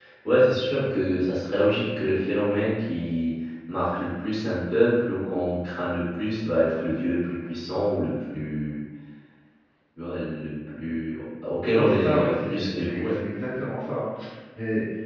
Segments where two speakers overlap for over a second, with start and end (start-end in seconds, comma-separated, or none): 11.7-13.2